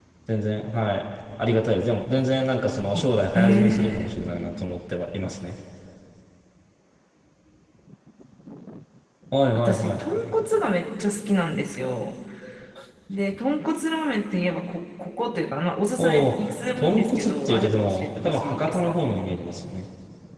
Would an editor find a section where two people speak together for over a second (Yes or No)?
Yes